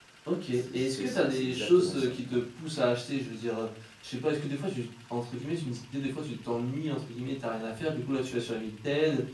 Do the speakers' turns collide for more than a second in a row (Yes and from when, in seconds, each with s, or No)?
Yes, from 0.5 s